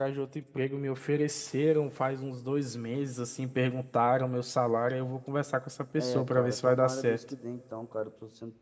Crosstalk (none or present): present